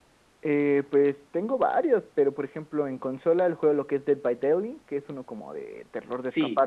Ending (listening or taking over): listening